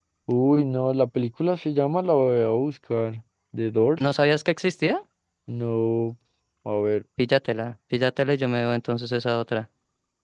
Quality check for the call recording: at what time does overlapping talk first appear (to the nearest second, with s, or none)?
none